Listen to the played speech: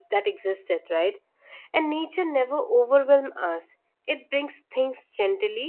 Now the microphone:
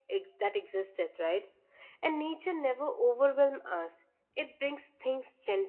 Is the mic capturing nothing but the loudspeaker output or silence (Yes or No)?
Yes